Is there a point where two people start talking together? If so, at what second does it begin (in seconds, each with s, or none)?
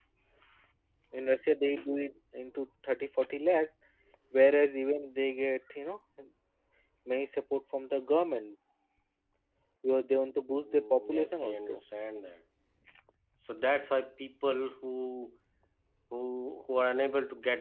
10.5 s